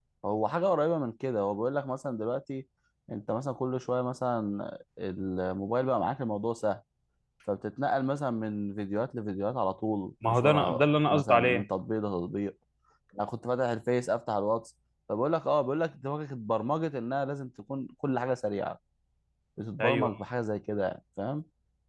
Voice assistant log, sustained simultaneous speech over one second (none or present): present